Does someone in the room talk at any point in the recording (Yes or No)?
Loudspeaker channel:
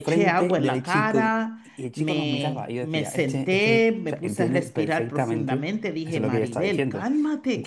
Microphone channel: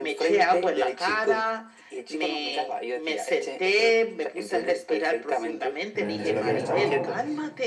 Yes